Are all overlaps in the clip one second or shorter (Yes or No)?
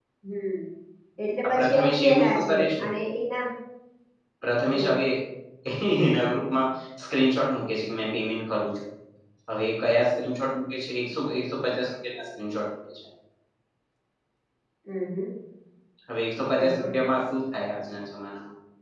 No